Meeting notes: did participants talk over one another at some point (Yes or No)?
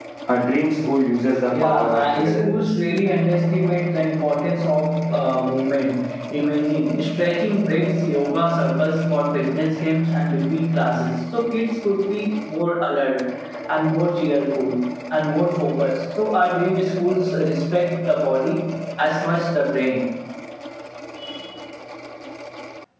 Yes